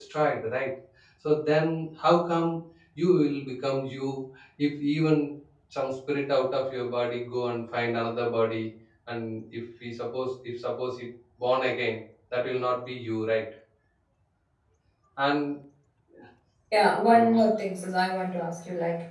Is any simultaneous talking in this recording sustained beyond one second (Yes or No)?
No